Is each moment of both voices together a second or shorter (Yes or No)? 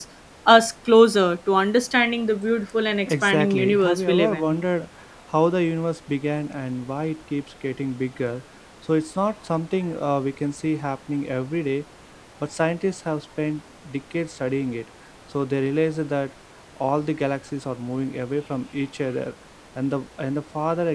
No